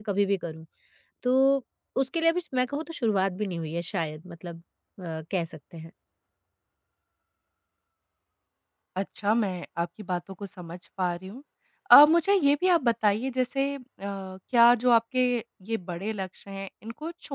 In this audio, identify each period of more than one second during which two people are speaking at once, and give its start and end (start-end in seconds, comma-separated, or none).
none